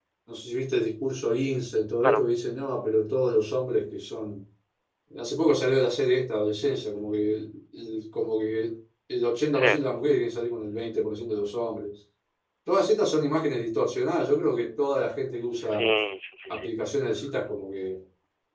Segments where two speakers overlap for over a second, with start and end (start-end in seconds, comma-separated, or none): none